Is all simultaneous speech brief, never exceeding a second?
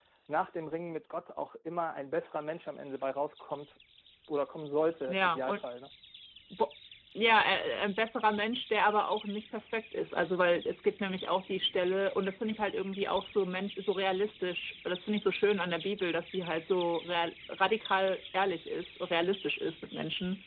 Yes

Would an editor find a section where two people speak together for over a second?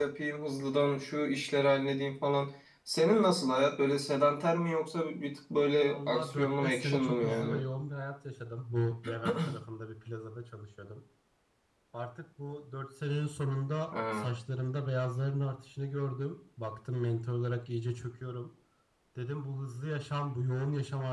Yes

